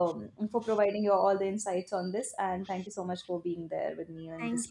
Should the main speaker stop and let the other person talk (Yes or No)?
Yes